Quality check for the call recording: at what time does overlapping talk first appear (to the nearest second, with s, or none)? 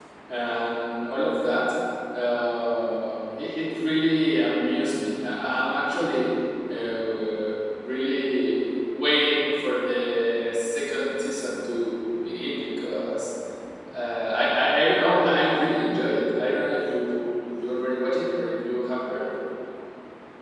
none